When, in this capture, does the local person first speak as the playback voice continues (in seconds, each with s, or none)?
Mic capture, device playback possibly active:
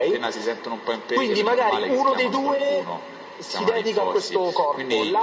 none